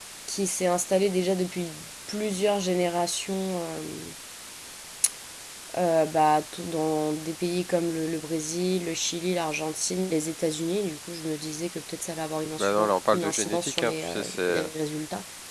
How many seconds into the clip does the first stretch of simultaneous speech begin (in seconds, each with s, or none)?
12.6 s